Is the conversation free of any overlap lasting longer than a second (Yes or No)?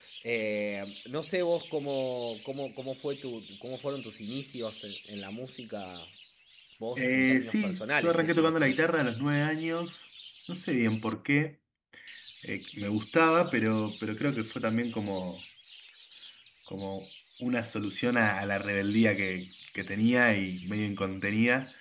No